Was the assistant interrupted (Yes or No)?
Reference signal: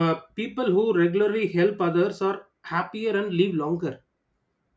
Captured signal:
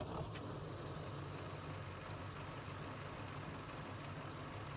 No